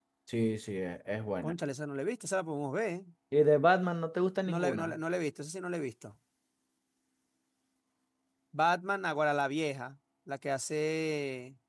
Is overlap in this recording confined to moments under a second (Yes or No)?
Yes